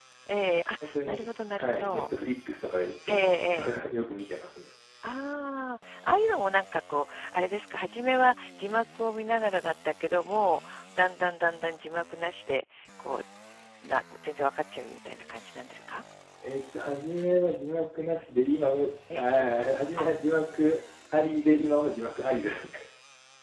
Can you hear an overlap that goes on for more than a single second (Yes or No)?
Yes